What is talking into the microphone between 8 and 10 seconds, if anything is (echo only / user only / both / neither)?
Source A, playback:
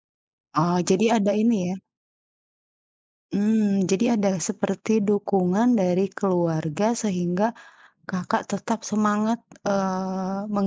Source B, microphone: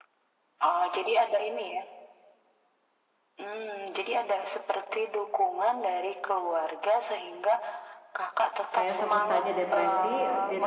both